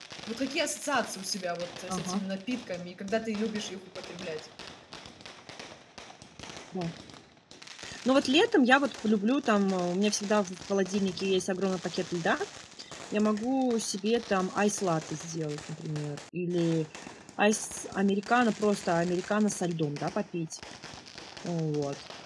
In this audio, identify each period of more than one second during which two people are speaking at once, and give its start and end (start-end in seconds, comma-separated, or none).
none